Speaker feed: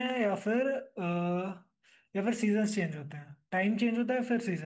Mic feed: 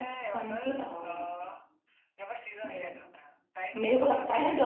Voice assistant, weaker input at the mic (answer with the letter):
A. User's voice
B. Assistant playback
B